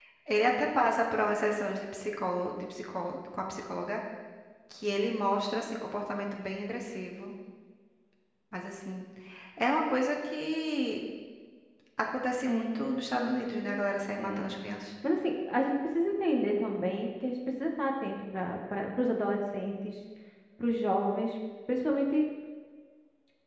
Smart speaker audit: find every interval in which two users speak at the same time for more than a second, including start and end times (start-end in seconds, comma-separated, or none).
12.4-13.8